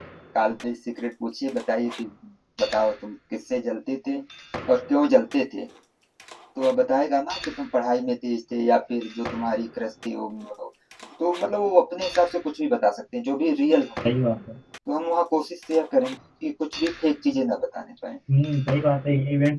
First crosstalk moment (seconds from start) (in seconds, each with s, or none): none